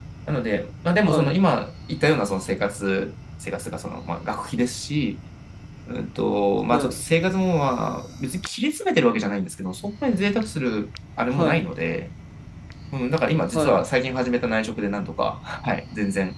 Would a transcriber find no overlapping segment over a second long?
Yes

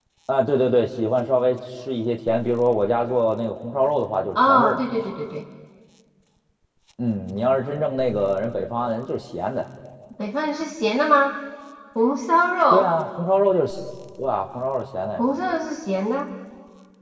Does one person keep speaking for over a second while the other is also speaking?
No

